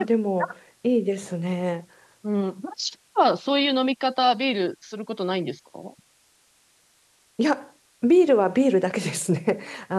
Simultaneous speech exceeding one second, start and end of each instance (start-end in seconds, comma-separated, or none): none